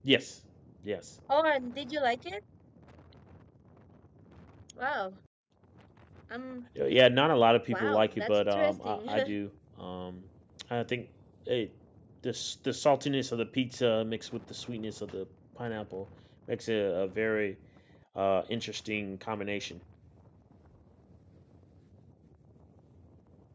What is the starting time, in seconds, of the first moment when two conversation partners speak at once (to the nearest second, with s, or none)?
8 s